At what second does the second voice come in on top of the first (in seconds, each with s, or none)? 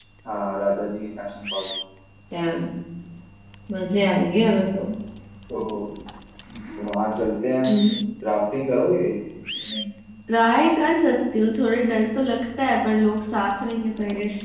none